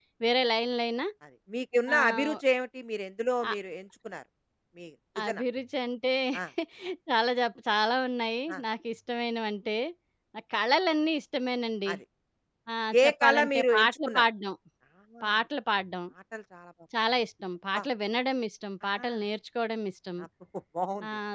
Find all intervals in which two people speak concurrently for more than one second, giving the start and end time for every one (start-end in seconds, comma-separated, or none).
13.0-14.3